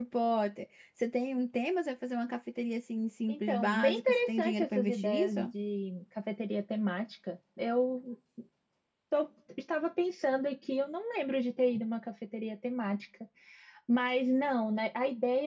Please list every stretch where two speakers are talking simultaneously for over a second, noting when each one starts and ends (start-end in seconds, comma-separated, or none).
3.3-5.5